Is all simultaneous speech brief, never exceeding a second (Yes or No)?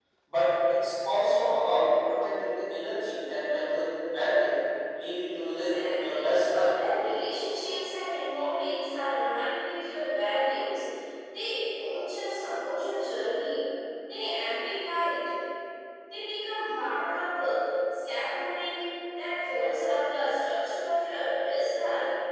No